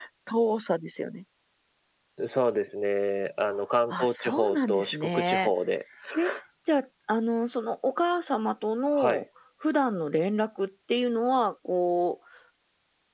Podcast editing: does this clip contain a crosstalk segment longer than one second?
Yes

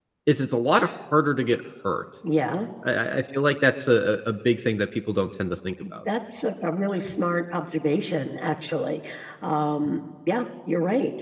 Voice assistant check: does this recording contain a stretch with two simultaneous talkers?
No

